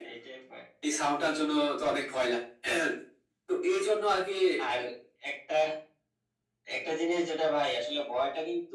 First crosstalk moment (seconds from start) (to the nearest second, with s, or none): none